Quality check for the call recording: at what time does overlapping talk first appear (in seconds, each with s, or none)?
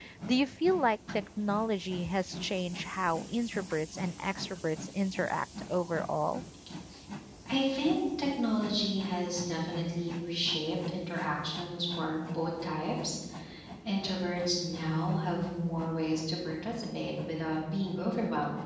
none